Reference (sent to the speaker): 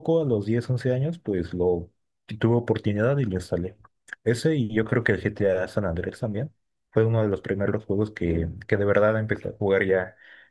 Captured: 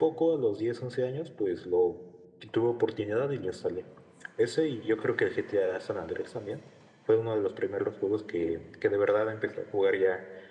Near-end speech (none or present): none